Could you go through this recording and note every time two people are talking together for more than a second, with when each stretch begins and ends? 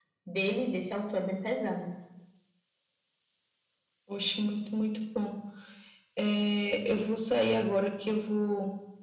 none

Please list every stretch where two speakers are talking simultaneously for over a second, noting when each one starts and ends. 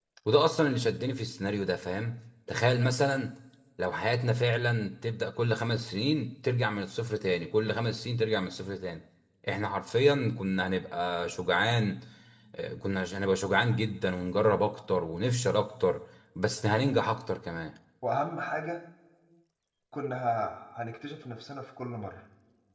none

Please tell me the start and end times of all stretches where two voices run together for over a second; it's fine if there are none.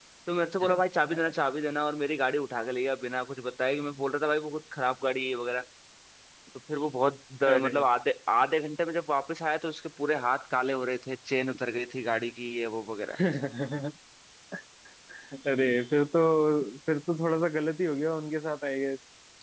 none

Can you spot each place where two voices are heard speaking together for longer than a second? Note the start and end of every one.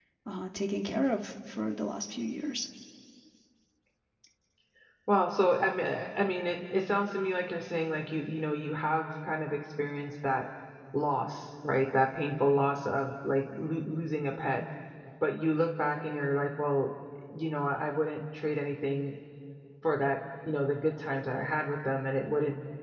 none

